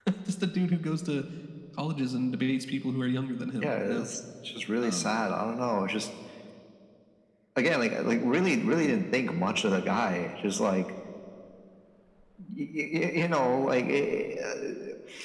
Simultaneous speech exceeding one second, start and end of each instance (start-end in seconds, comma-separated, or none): none